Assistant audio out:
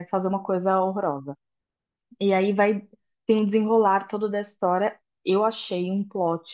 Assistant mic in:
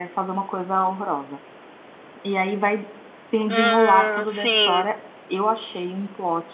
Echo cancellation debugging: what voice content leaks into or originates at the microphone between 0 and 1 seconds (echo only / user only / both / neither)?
echo only